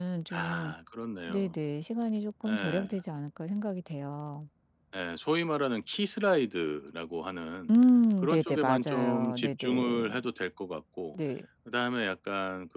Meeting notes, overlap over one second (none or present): present